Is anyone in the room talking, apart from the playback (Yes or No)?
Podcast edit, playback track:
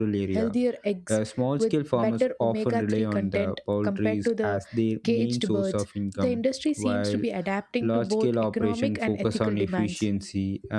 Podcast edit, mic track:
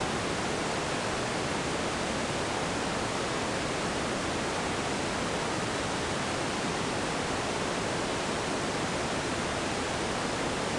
No